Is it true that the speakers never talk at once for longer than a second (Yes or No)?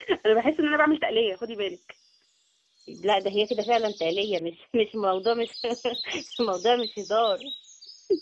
Yes